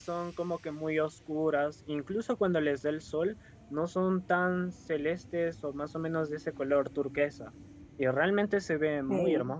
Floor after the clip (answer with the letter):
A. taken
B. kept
A